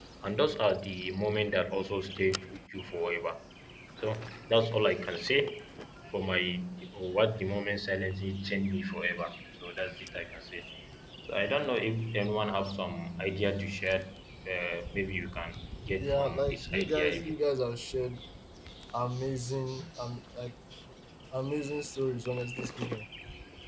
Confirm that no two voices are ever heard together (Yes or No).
No